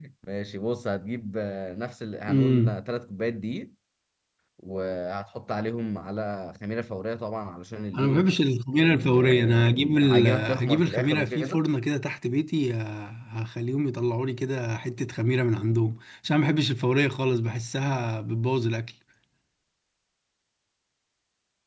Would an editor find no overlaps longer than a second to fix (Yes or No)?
No